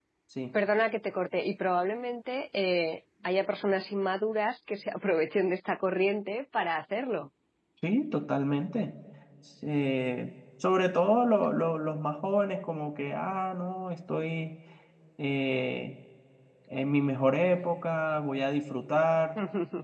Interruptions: none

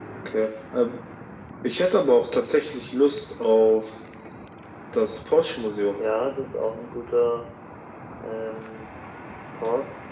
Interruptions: none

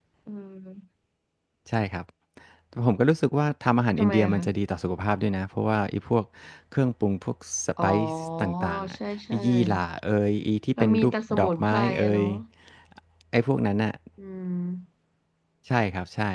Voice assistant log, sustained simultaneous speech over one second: present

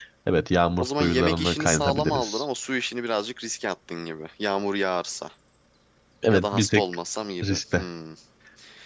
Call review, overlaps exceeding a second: present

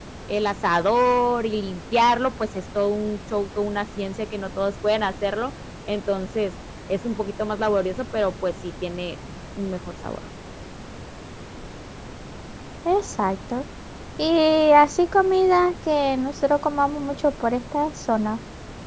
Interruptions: none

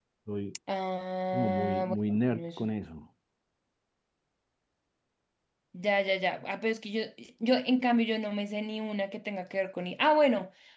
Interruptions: present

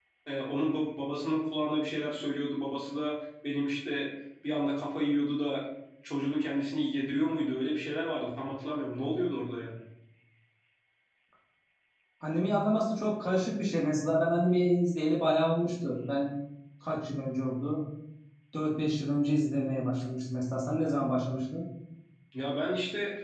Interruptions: none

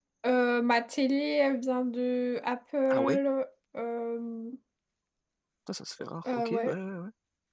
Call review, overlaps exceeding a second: none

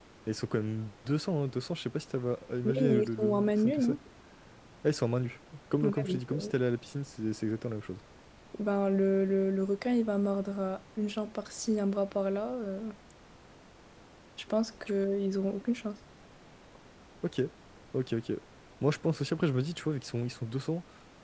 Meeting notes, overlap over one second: present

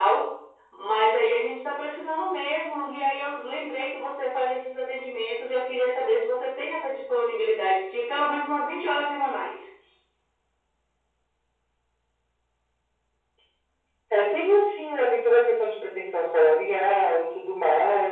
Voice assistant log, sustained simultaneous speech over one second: none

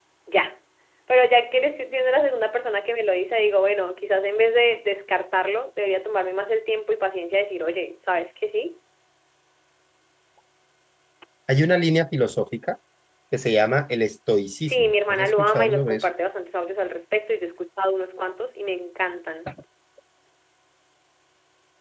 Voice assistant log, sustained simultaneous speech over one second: present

